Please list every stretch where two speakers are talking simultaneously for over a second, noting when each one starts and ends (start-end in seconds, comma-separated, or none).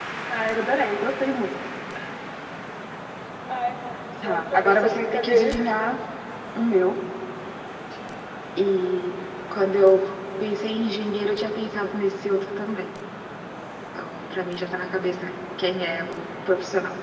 4.2-5.6